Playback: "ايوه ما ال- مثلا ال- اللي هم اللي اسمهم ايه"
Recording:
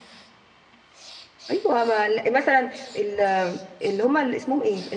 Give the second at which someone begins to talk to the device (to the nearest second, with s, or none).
none